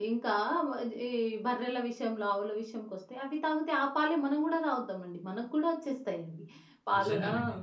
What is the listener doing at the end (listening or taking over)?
listening